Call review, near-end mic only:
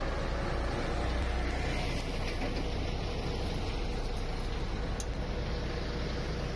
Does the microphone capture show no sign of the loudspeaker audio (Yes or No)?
Yes